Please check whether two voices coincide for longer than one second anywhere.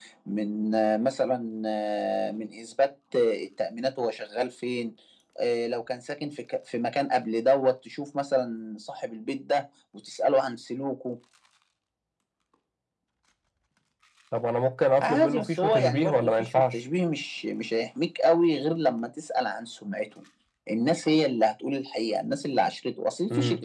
Yes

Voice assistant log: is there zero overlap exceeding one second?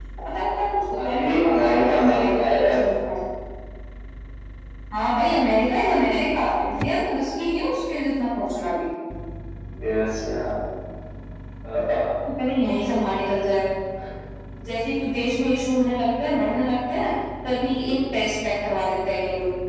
No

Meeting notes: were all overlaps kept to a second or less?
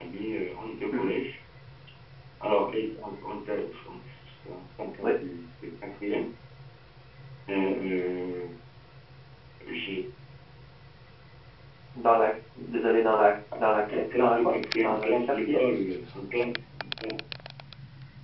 No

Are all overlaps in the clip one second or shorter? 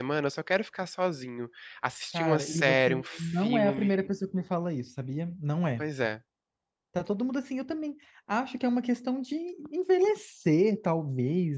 No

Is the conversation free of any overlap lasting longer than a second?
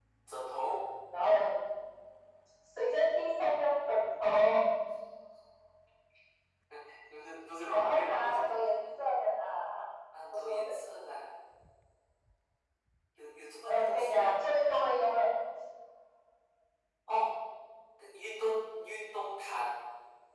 No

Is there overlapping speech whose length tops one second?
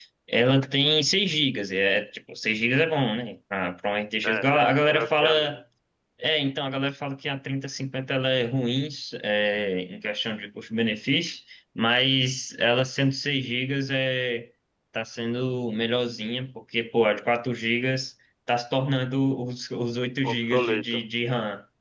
Yes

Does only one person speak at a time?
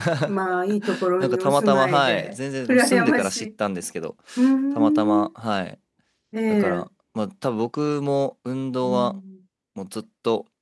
No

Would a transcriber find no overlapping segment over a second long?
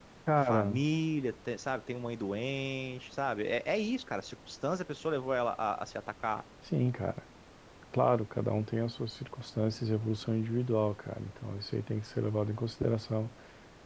Yes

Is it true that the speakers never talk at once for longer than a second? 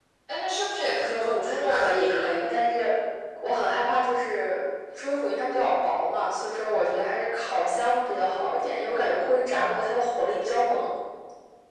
No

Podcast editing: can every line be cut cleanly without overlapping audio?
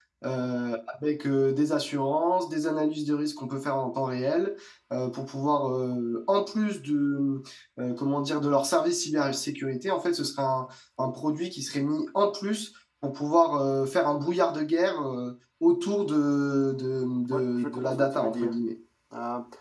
No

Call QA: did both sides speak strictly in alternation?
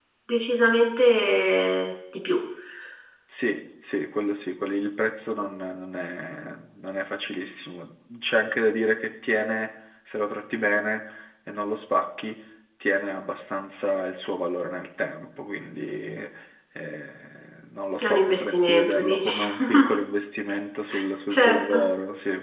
No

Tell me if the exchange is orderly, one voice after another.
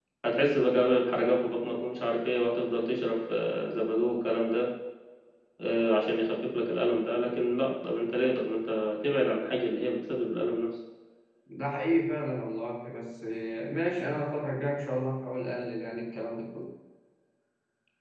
Yes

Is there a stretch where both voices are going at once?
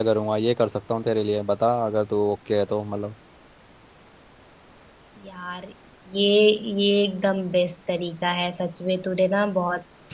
No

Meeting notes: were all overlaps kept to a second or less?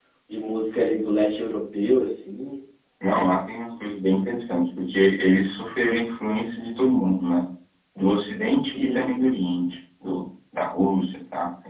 Yes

